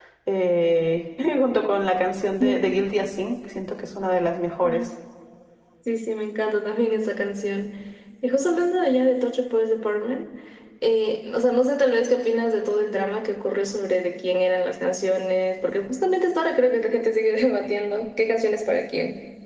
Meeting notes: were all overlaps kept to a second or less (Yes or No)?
Yes